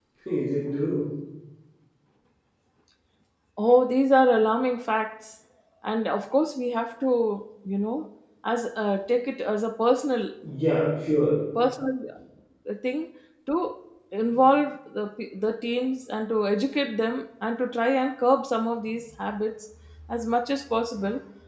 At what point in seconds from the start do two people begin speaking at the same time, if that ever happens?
none

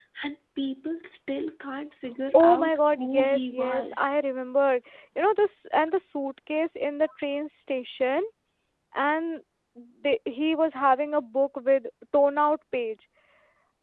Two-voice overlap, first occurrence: 2.4 s

